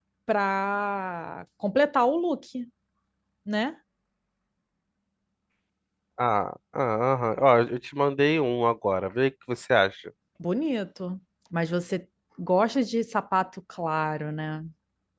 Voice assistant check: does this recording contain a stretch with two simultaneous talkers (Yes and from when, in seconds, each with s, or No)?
No